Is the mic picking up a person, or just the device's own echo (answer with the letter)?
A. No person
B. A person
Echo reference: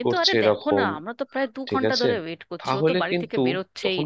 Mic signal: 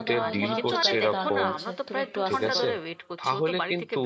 B